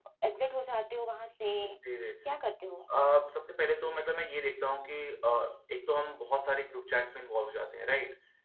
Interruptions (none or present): none